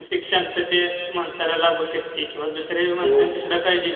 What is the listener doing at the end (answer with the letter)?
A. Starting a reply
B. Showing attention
B